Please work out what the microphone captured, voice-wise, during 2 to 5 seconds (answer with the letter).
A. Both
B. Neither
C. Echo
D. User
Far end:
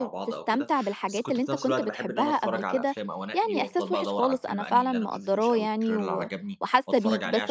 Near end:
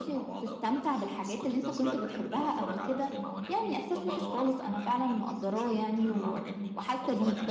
C